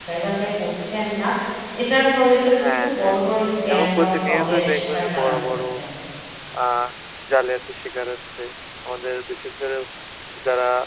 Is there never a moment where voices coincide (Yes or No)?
No